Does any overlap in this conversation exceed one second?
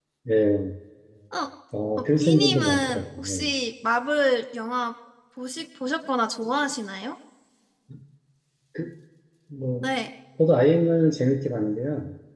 Yes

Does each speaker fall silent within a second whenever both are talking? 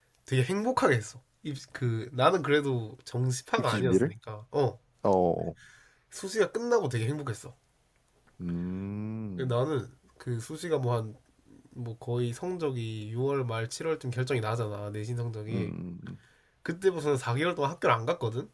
Yes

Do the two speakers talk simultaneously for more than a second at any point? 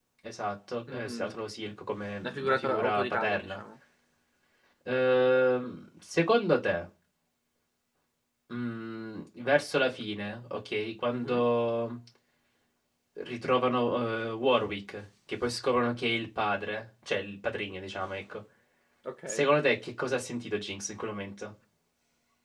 Yes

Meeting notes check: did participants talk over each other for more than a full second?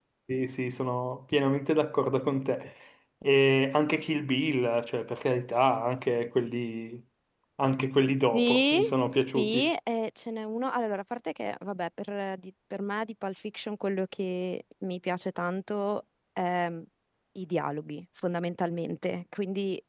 Yes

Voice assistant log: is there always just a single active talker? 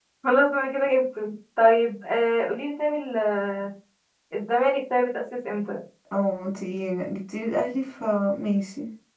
Yes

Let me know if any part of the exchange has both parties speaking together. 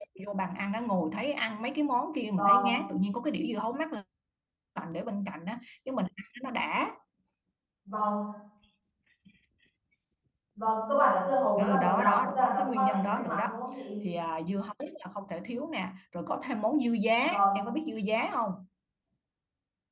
Yes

